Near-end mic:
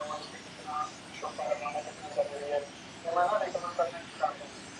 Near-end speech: none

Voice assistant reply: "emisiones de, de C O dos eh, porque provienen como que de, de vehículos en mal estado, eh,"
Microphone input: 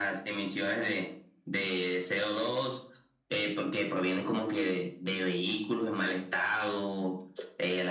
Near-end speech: none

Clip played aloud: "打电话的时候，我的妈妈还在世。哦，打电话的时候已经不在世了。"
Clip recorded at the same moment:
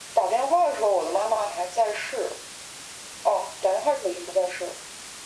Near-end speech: none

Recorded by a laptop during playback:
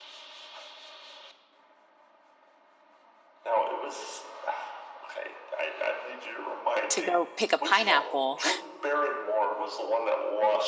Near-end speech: present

